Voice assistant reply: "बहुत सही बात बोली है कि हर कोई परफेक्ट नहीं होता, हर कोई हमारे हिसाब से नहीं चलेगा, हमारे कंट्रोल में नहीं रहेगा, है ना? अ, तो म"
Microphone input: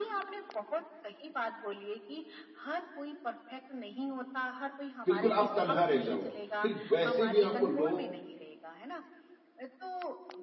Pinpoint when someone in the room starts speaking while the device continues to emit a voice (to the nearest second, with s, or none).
5 s